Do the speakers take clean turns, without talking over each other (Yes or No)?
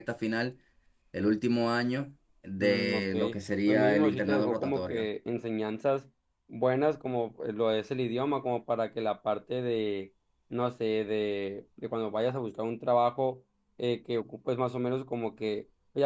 No